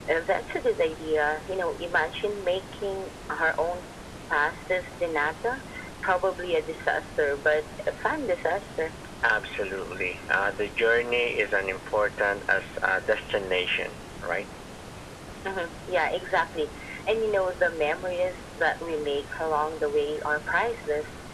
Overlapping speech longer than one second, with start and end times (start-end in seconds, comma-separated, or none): none